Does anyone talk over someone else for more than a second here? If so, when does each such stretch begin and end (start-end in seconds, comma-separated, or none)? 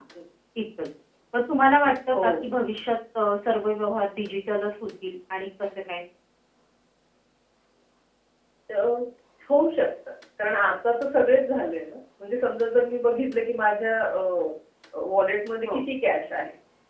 none